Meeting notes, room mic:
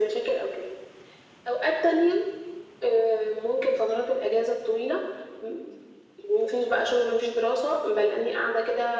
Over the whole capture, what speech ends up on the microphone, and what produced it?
echo only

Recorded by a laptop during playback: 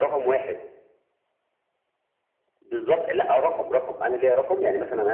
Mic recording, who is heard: echo only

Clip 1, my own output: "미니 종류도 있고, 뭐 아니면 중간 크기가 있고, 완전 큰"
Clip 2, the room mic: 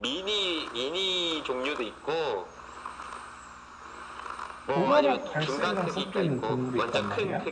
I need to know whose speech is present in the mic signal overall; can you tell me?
both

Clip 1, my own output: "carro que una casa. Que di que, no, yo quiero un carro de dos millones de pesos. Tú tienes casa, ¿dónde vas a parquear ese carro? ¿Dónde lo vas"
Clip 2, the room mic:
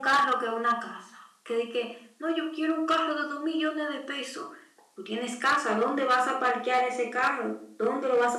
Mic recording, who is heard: echo only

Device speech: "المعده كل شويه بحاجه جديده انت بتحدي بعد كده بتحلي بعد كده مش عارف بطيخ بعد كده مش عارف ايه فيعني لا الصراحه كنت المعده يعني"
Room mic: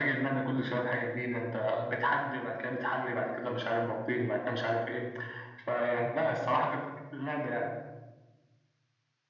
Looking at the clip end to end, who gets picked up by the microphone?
echo only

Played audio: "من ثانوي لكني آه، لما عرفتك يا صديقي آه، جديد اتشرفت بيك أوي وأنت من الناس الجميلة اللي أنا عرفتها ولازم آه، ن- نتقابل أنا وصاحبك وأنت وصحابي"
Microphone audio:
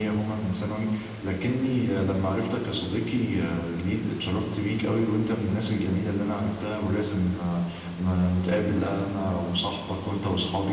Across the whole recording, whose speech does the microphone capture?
echo only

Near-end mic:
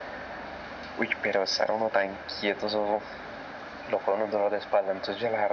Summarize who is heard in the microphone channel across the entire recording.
echo only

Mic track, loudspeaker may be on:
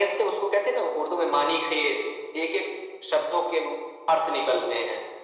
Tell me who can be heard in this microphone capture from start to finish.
echo only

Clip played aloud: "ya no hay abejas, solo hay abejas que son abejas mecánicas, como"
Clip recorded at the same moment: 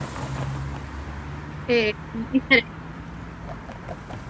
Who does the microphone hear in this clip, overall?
user only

